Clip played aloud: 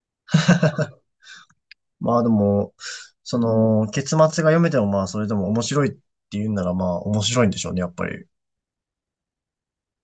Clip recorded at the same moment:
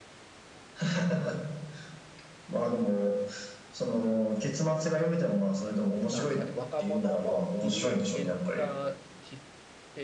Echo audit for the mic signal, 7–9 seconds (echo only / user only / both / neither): both